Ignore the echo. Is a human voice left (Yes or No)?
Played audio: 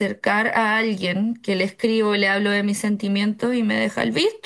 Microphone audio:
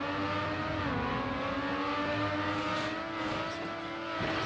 No